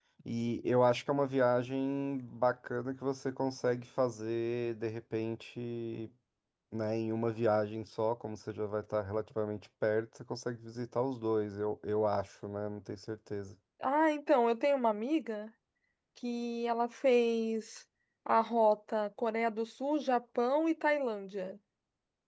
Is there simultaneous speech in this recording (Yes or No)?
No